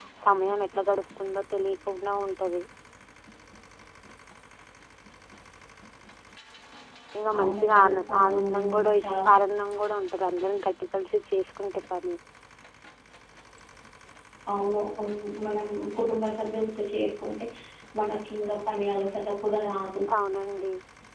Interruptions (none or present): present